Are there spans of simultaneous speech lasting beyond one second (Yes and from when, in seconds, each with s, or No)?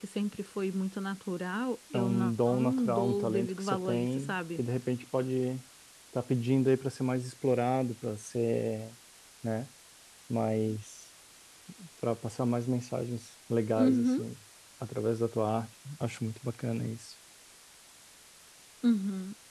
Yes, from 1.9 s